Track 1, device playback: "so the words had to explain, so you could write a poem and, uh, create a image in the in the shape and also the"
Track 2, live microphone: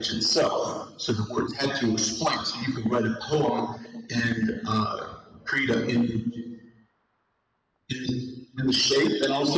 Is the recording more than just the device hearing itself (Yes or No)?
No